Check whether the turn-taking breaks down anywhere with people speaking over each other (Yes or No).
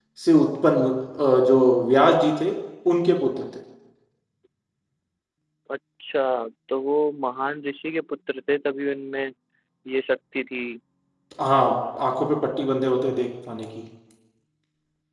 No